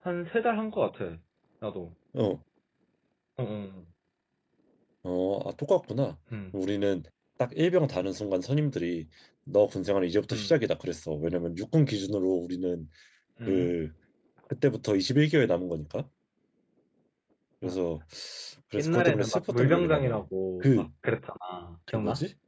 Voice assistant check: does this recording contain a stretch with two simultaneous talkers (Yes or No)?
Yes